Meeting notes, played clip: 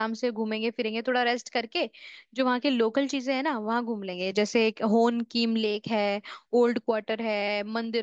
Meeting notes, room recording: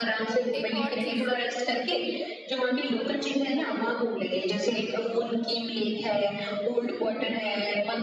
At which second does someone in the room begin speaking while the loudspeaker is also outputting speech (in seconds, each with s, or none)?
0.5 s